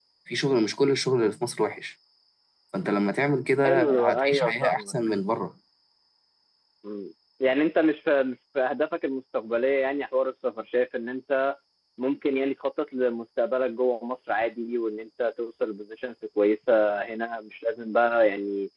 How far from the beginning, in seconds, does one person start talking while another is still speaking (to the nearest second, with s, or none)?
4 s